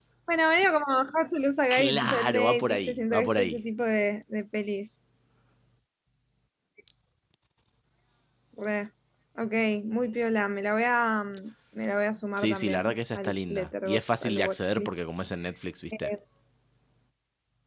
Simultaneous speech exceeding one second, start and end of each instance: 1.7-3.6, 12.4-14.9

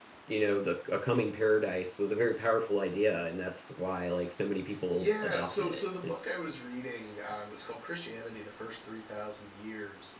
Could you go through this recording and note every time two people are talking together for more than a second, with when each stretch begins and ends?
4.9-6.3

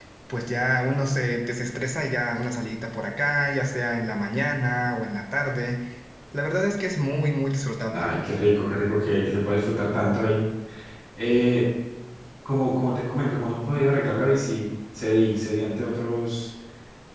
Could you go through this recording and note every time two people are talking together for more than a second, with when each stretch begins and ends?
none

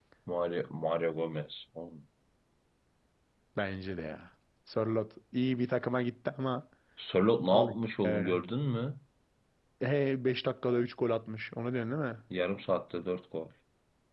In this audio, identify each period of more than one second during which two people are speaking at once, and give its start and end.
none

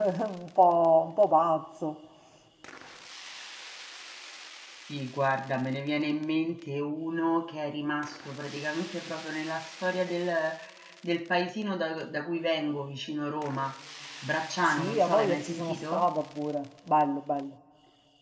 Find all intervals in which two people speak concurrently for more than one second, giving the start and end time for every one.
14.6-16.1

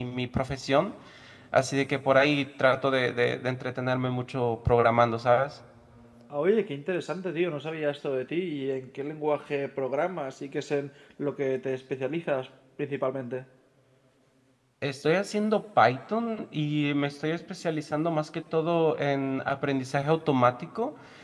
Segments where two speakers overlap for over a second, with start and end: none

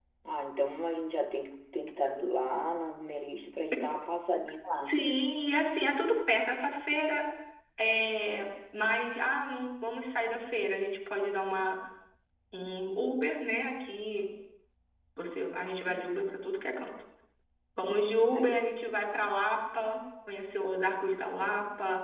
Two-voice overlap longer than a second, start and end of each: none

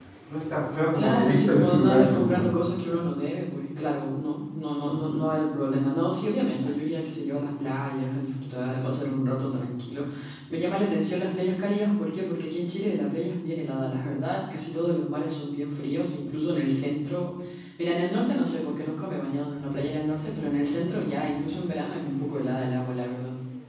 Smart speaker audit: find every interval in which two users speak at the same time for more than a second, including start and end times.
0.9-2.4

